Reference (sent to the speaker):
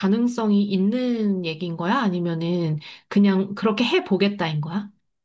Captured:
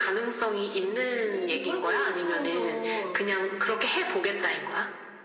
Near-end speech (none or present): present